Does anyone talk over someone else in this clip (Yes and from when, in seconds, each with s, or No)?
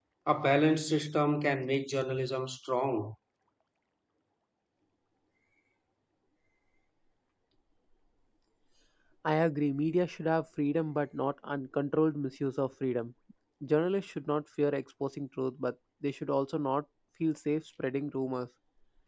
No